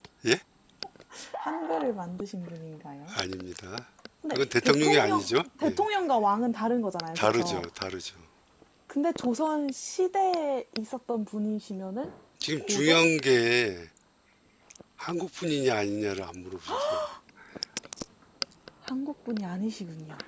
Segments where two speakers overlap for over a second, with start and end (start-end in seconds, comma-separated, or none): 4.3-5.8